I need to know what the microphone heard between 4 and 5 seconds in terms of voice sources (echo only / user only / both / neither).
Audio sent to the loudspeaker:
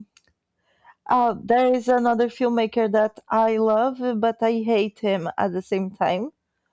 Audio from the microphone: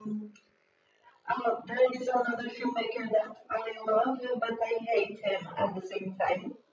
echo only